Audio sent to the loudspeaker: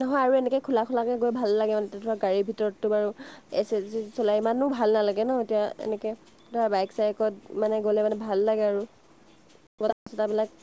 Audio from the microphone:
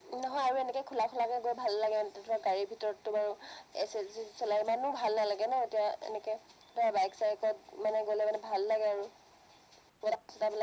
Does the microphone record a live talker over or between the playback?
No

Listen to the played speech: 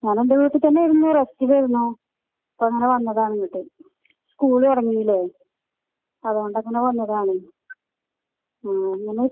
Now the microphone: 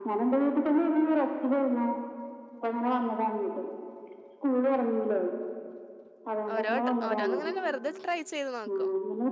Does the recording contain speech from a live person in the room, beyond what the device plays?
Yes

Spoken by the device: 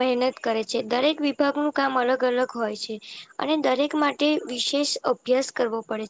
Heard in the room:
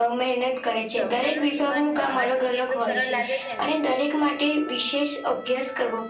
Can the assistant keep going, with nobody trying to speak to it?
No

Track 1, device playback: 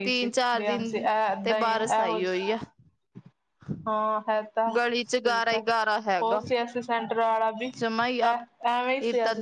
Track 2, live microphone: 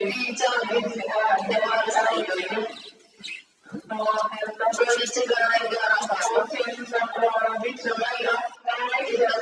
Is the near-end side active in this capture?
No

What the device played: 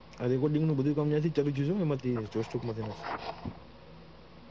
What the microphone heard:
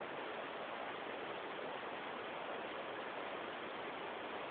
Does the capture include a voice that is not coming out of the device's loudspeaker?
No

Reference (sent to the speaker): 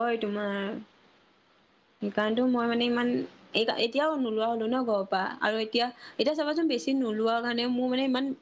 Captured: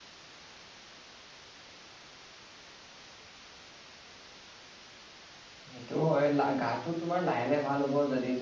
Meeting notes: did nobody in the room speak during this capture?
No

